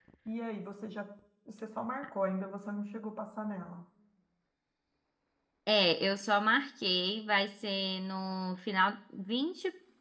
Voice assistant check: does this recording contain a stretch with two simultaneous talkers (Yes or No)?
No